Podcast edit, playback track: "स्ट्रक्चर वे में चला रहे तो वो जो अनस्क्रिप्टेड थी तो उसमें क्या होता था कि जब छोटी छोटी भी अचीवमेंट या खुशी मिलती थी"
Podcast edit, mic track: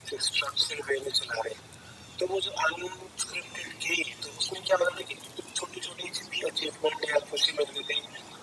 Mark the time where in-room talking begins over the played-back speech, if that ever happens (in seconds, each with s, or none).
none